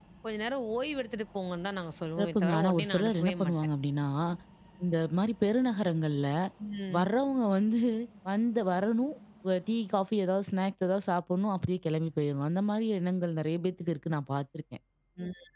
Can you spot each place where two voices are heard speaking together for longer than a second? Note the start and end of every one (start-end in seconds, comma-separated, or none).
2.2-3.6